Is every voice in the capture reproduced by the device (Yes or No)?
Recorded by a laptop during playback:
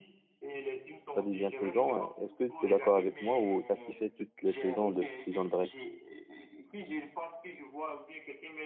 No